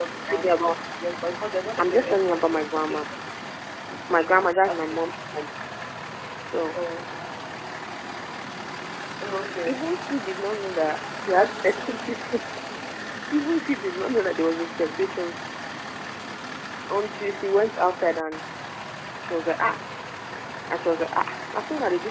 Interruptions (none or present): present